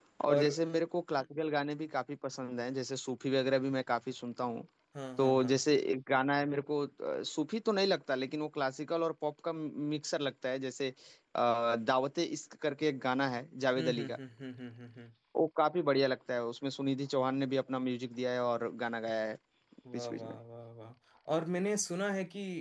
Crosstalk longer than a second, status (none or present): none